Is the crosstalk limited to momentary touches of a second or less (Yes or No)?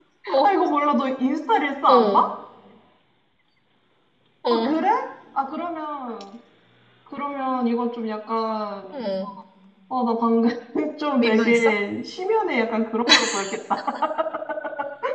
Yes